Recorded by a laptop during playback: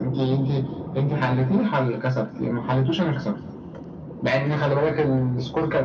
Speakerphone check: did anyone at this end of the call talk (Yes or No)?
No